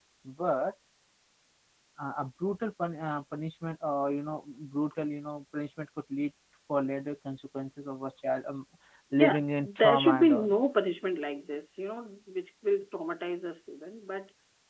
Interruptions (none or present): present